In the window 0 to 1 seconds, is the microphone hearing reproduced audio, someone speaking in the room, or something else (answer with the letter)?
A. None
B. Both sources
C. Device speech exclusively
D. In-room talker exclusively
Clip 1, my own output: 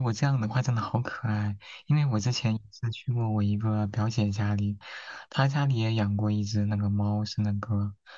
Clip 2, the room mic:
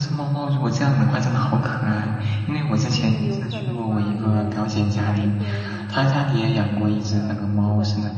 C